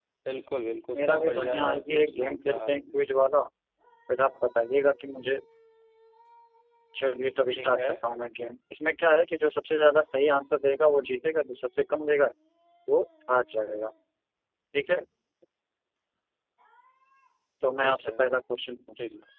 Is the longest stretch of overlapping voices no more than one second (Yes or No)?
No